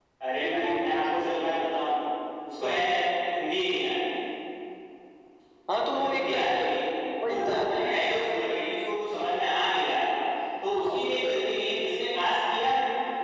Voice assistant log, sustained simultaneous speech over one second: present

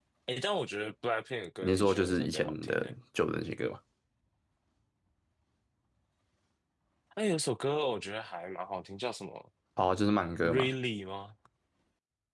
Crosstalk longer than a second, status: present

